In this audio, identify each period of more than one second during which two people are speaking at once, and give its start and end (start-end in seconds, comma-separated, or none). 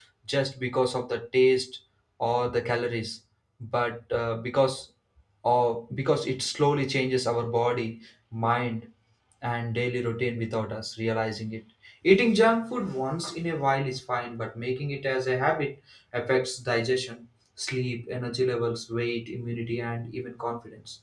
none